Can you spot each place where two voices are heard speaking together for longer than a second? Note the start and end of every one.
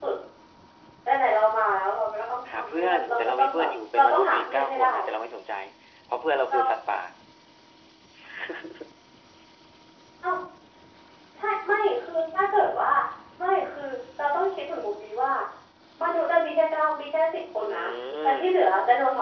2.5-4.9

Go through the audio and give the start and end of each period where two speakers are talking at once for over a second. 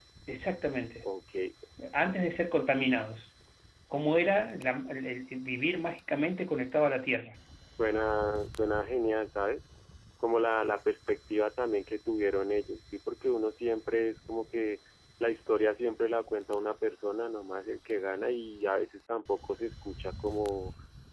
none

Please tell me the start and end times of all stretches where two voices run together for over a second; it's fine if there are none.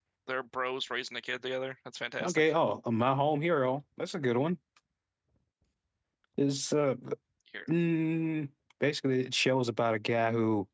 none

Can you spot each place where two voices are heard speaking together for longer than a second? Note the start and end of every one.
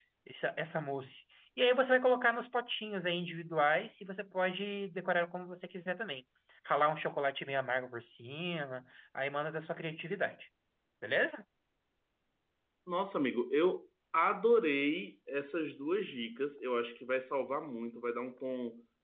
none

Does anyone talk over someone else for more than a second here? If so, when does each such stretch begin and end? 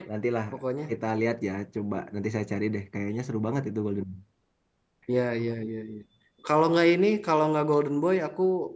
none

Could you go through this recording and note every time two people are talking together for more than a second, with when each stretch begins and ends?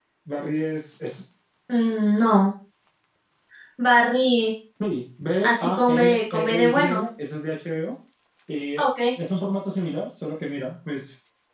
5.4-7.1

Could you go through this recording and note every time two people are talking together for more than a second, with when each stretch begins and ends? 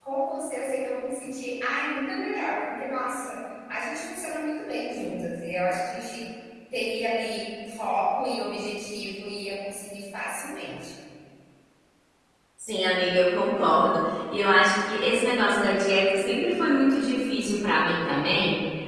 none

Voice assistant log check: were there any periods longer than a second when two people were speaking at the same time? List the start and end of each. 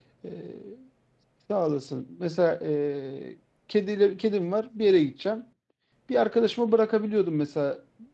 none

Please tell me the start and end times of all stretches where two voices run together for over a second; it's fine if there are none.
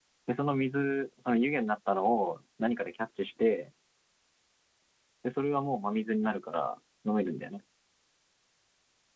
none

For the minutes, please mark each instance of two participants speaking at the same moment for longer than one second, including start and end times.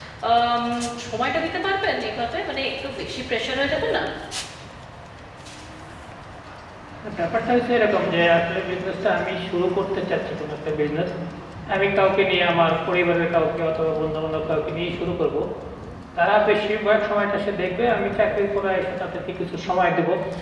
none

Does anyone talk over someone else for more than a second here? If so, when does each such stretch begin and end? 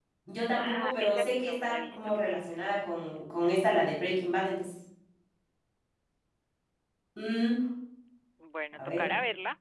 0.6-2.2

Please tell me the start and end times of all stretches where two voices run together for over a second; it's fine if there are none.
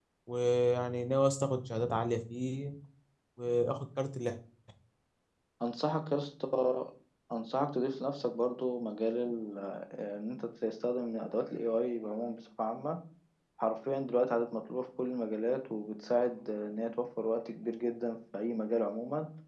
none

